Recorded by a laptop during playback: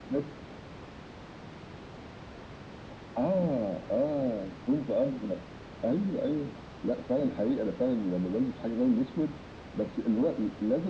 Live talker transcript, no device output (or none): none